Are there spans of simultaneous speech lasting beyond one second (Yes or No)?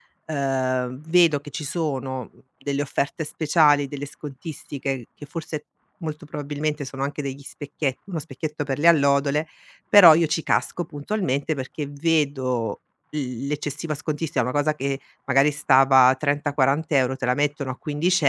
No